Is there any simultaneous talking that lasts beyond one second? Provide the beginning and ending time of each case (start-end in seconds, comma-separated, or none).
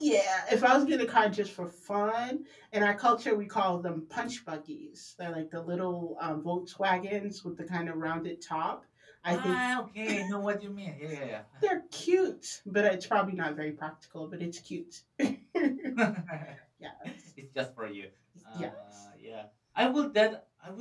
none